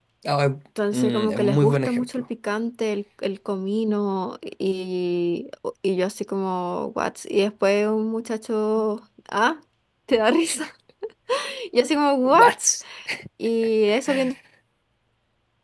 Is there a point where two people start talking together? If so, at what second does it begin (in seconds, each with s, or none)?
1.0 s